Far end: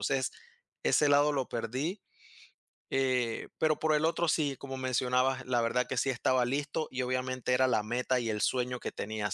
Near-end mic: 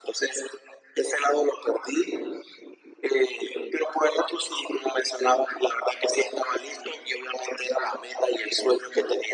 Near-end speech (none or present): none